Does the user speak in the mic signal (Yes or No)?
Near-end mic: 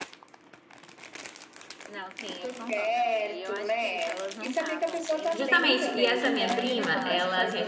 Yes